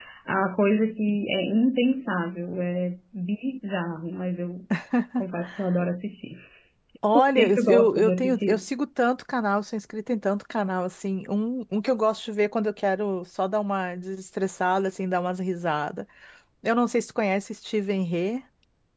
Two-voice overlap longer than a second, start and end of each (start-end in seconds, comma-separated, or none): 7.1-8.6